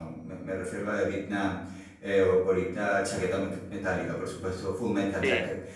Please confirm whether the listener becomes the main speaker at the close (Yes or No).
No